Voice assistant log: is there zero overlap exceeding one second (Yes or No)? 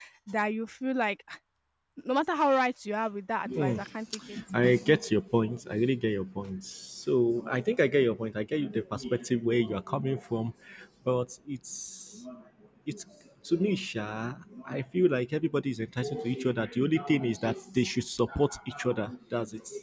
Yes